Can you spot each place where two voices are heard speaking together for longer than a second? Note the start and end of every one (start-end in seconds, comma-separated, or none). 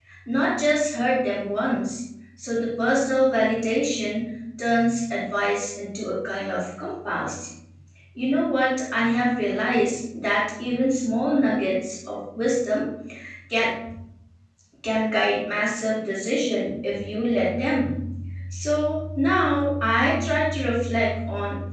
none